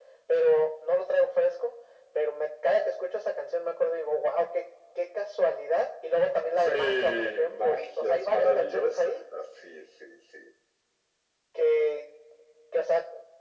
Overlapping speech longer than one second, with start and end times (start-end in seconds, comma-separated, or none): 6.6-9.2